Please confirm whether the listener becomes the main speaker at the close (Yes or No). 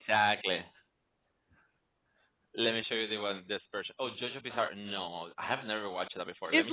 Yes